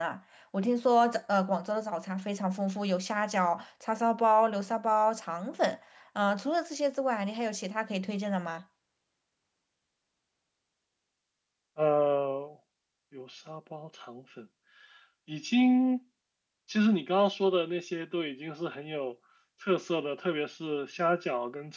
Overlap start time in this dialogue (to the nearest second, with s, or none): none